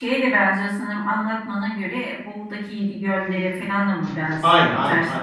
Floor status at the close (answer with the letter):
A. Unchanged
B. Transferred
B